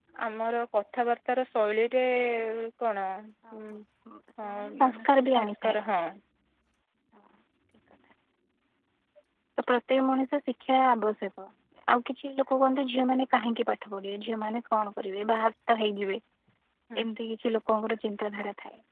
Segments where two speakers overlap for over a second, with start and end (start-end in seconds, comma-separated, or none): 4.5-5.8